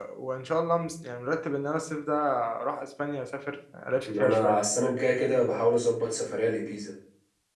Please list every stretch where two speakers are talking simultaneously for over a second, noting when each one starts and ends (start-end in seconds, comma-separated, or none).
none